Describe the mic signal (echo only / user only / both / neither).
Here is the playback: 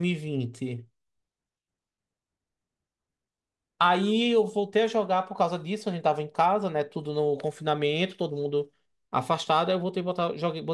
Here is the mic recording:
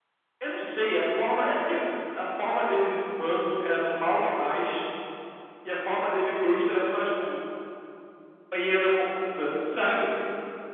user only